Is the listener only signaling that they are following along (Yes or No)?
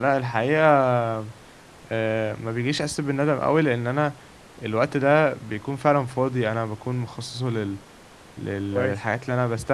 Yes